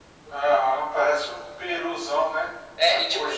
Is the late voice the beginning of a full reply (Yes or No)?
Yes